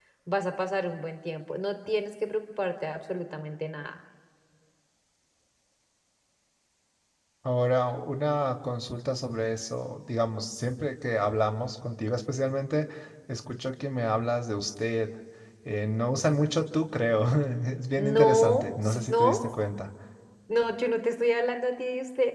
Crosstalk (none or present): present